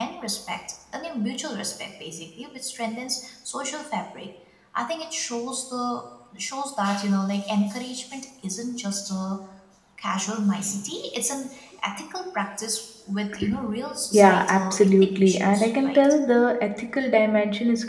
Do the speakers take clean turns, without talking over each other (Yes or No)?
No